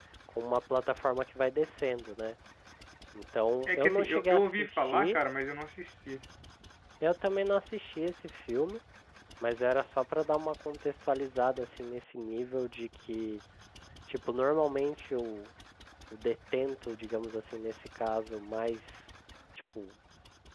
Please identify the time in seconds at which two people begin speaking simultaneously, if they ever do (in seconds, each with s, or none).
3.7 s